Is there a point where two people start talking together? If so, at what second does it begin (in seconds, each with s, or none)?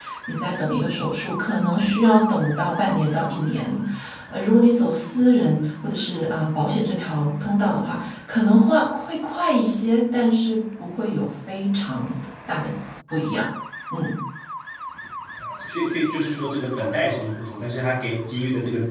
none